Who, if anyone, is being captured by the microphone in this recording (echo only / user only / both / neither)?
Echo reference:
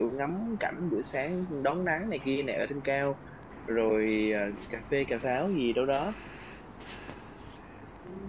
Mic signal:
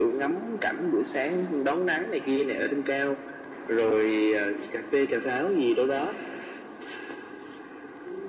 echo only